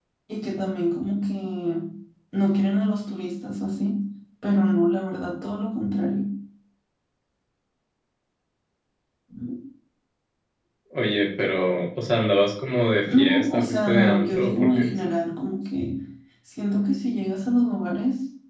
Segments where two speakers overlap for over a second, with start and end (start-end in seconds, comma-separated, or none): 13.0-15.0